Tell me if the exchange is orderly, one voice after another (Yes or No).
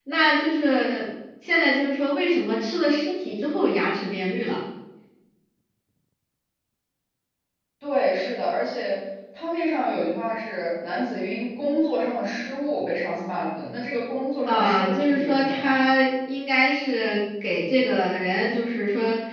No